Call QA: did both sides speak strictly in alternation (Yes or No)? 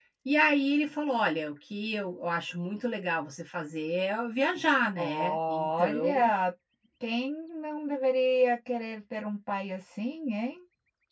No